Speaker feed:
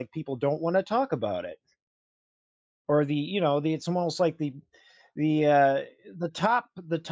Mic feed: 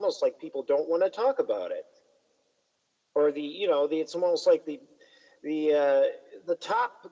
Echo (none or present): present